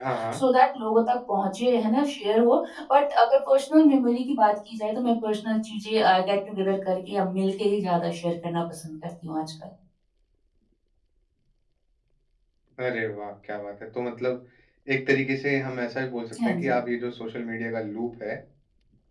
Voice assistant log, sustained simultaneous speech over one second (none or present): none